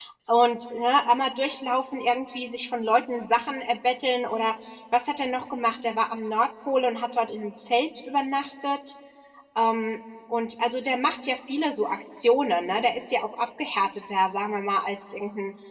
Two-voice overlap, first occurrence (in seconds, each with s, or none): none